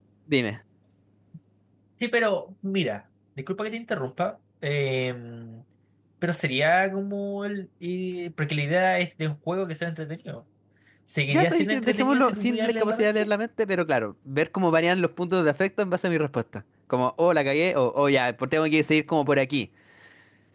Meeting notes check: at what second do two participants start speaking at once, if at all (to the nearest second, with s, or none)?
11 s